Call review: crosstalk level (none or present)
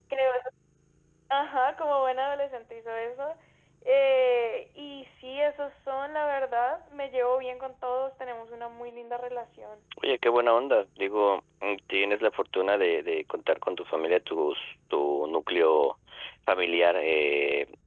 none